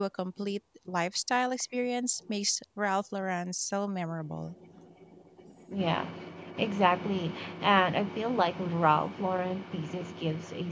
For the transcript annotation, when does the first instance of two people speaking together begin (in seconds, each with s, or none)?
none